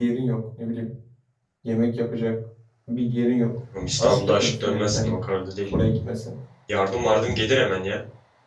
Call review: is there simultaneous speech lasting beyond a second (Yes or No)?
Yes